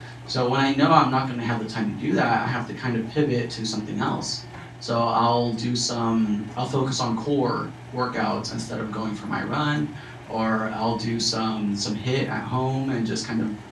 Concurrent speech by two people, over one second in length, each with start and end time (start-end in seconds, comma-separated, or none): none